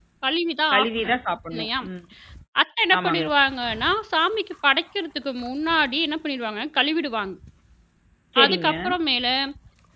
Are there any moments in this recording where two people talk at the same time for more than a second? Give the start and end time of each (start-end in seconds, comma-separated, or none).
none